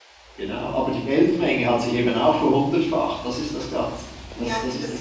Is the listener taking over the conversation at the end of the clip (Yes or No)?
Yes